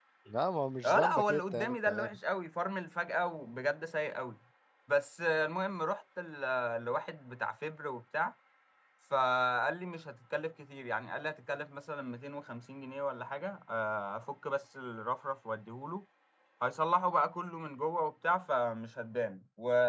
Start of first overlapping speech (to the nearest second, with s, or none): 1 s